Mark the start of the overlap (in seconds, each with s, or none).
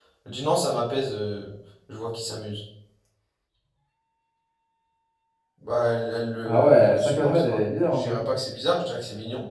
6.4 s